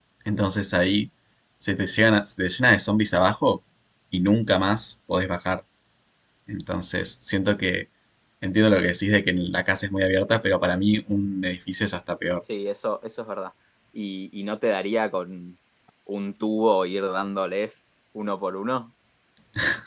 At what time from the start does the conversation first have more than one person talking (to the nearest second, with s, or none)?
none